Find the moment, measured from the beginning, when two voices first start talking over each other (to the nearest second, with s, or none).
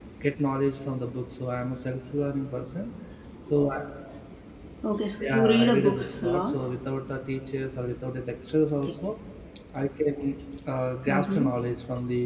5 s